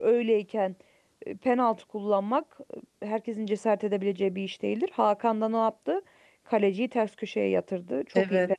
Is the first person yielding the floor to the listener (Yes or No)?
Yes